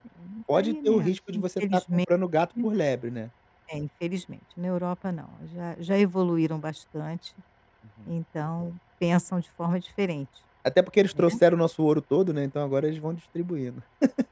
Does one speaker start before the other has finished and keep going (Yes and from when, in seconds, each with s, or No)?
Yes, from 0.5 s